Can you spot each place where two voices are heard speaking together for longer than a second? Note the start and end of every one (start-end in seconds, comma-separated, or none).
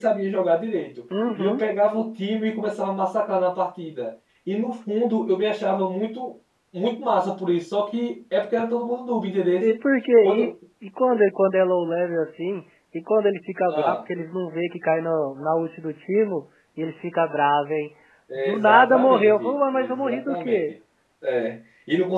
18.4-20.6